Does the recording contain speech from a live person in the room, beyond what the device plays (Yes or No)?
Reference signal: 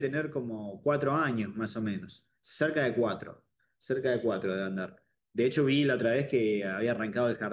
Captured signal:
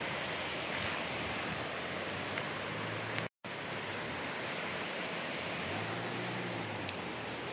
No